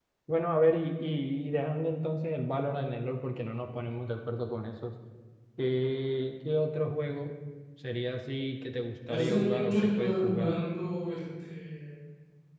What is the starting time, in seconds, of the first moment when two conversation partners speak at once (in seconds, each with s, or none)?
9.1 s